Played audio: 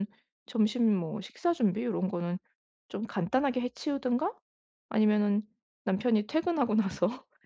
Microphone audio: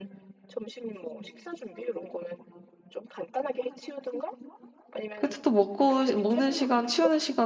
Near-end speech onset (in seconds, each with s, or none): 5.2 s